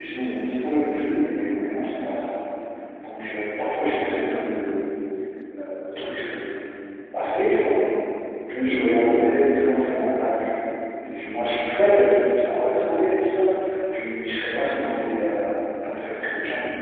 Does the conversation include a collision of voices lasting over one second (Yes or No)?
No